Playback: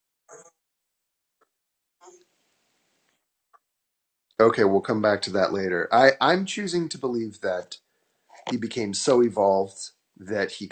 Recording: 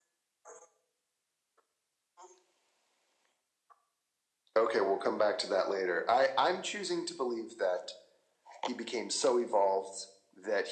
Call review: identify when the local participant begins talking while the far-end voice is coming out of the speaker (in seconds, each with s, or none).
none